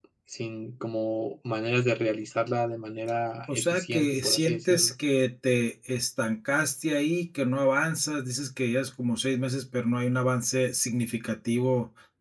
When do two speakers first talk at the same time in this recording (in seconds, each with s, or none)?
3.5 s